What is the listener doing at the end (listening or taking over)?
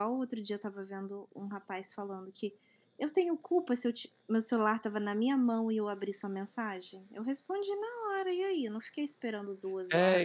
taking over